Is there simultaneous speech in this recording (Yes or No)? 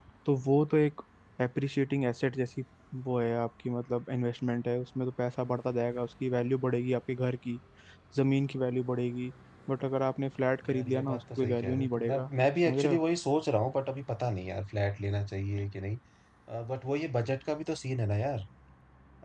Yes